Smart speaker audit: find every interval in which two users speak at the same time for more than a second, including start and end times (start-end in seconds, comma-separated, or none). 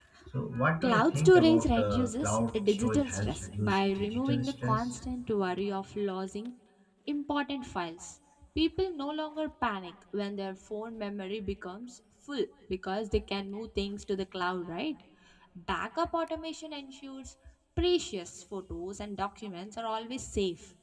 0.8-4.9